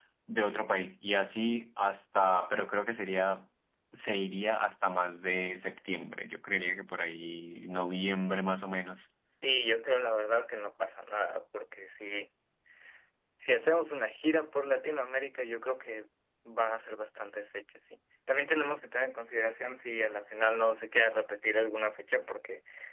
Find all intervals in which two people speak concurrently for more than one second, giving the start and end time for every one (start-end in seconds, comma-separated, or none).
none